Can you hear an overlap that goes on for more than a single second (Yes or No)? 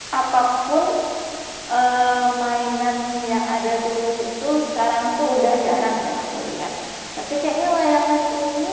No